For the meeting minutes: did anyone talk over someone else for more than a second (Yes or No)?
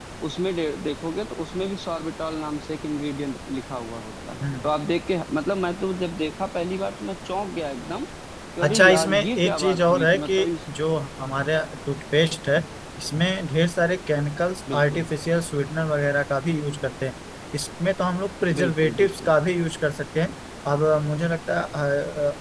Yes